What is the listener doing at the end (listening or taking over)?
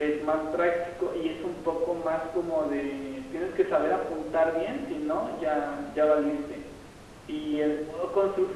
listening